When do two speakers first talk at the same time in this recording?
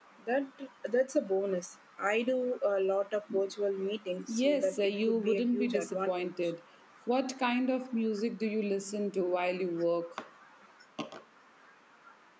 4 s

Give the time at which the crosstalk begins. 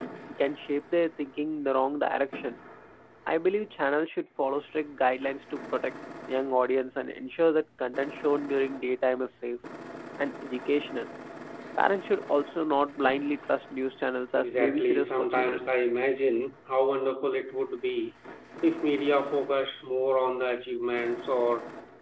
14 s

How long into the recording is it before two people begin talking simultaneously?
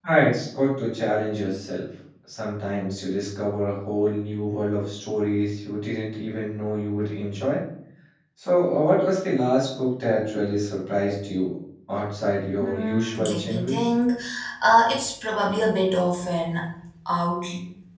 13 s

